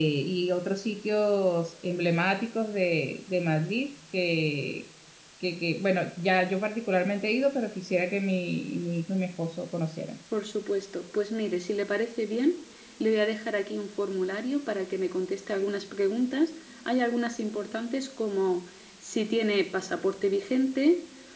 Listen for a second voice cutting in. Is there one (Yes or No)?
No